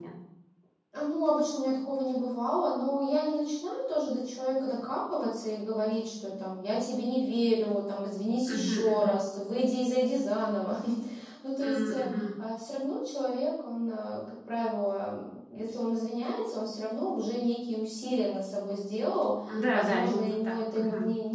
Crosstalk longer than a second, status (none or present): present